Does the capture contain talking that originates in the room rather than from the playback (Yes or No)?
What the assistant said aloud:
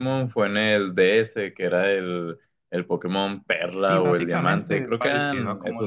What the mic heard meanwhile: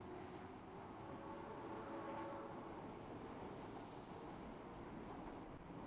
No